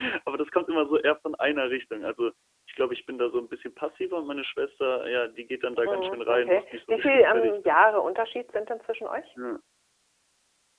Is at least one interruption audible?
Yes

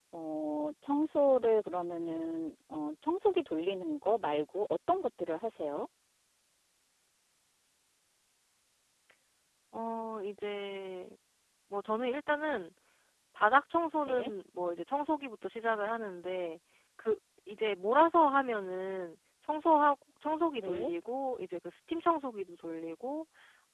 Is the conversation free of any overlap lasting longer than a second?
Yes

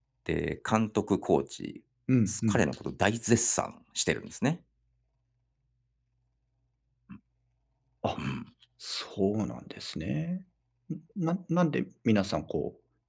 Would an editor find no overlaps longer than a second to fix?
Yes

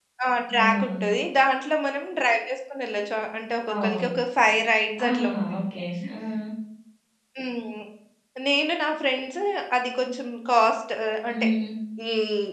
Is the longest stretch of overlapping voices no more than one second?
Yes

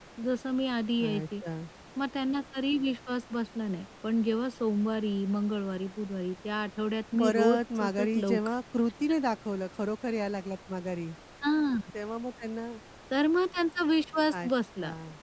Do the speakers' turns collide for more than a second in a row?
Yes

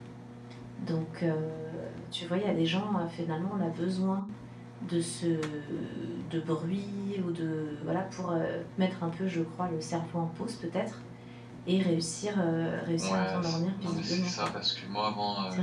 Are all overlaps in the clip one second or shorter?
No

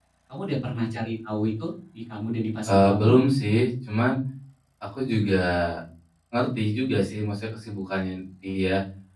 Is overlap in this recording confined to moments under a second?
Yes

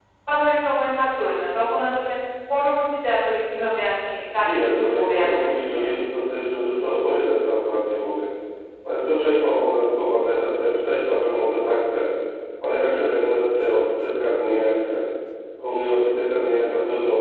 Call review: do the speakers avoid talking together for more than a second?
No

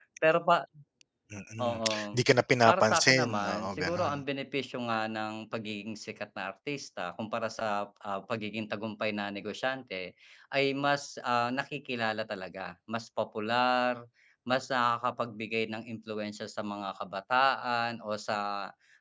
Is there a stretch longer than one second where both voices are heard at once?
Yes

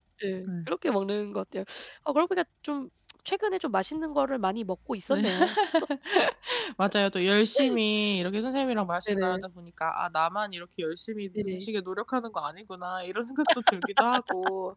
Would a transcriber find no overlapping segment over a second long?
Yes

